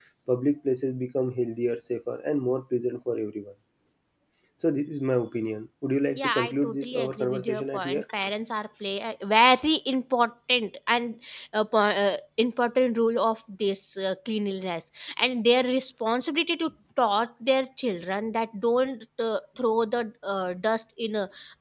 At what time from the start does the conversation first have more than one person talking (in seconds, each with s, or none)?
6.2 s